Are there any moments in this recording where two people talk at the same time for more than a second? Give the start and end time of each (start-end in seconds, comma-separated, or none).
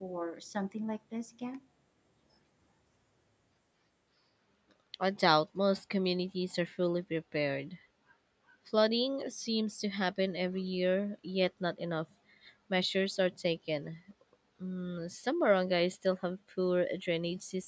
none